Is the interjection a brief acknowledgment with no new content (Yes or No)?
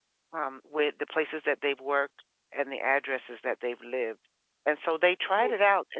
Yes